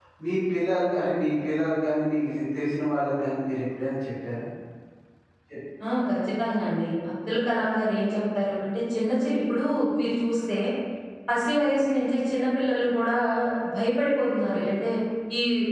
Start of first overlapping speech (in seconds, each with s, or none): none